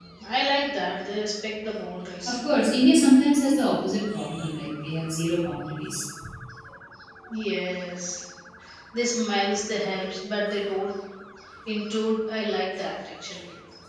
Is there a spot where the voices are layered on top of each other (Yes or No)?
No